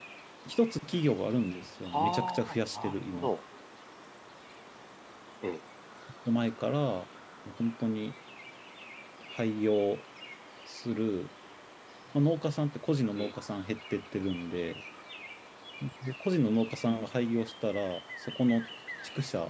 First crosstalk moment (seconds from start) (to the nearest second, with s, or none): 2 s